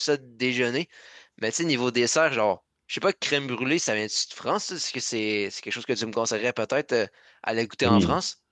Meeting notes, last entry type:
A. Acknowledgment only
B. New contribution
B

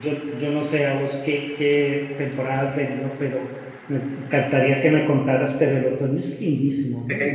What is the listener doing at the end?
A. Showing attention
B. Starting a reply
B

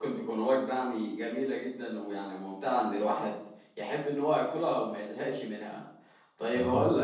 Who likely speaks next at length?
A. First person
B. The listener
A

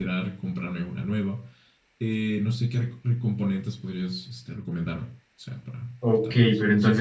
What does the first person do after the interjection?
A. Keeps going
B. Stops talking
B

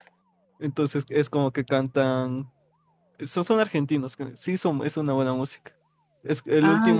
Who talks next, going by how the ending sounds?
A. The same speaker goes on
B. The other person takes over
A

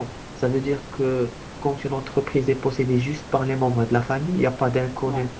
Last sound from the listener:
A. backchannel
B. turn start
A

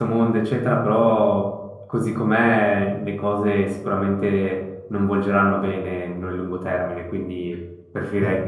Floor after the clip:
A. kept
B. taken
A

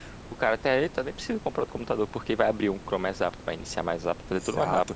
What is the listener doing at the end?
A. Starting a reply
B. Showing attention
A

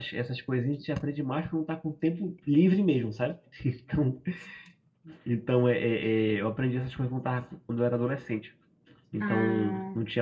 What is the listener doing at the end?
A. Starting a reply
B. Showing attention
B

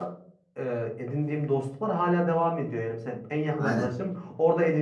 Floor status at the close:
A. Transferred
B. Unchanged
B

